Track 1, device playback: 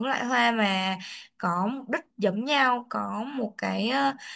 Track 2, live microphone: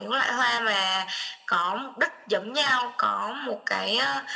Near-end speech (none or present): none